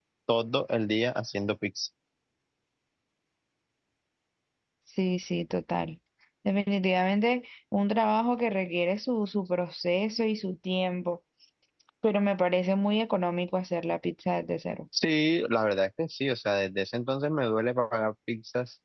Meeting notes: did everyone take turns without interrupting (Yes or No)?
Yes